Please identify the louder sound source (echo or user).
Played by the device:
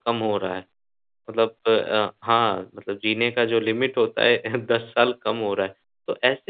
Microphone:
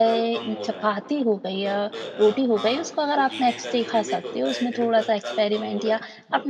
user